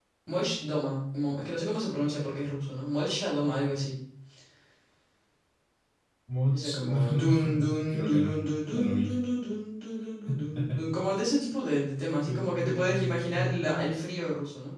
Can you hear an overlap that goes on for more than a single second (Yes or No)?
Yes